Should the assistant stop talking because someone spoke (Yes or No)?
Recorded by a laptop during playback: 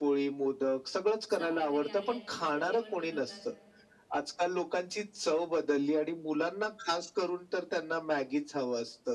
Yes